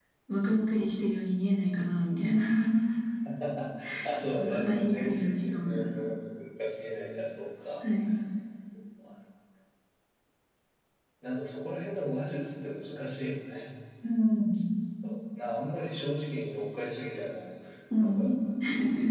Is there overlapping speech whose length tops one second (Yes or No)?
Yes